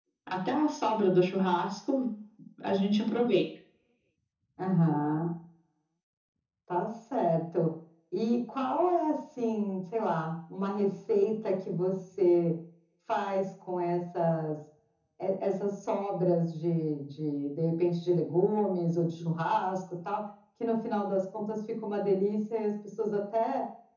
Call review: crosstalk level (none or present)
none